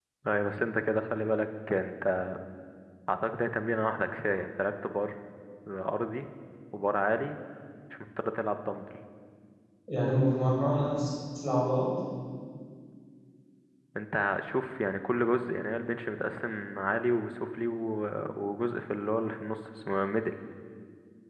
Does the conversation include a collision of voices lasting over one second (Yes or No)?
No